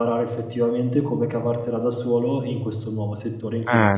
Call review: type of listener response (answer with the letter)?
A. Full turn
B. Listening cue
A